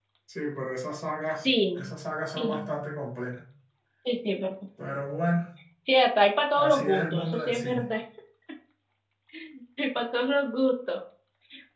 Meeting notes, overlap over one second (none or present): present